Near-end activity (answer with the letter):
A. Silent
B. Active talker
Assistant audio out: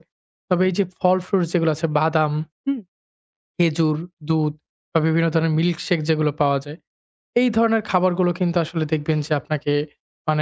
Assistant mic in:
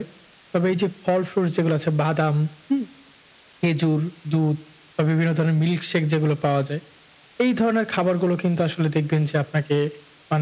A